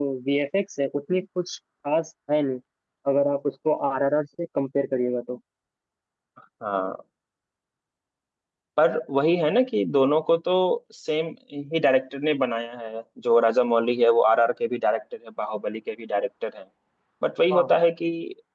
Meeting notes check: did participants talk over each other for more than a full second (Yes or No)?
No